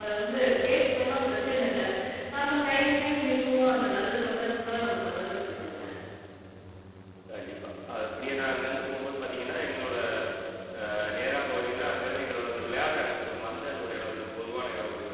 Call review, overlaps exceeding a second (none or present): none